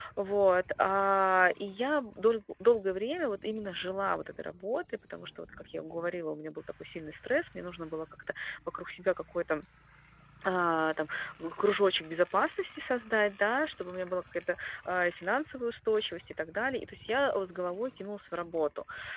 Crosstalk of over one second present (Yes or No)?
No